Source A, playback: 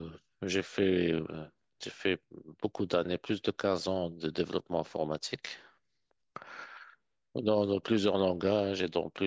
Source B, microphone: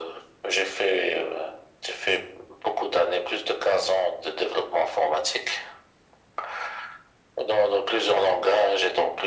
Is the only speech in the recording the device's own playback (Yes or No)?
Yes